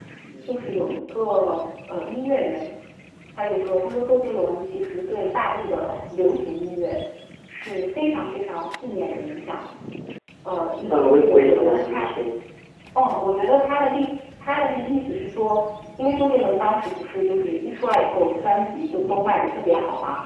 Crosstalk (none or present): present